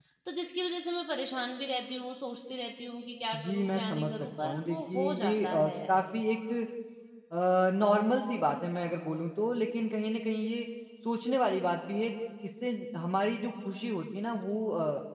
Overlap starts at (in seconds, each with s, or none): 3.3 s